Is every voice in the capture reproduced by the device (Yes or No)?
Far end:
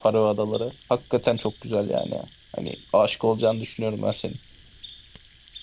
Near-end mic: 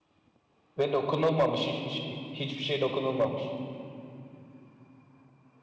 No